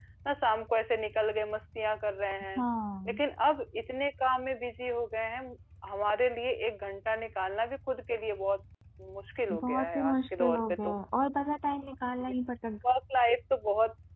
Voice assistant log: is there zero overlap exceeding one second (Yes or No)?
No